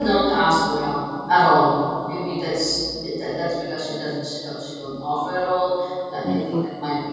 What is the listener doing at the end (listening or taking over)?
listening